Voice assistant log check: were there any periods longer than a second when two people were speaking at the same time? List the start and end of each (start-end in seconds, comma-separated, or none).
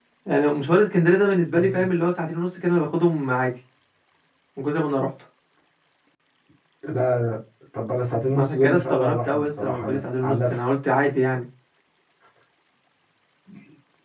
8.3-10.7